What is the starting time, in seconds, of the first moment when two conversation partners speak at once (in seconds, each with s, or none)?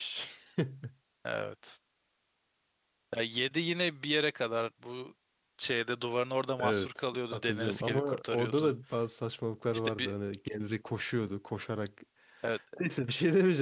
6.6 s